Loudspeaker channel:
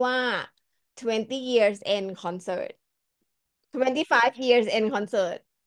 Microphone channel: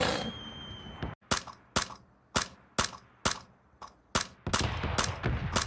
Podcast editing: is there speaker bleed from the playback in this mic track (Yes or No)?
No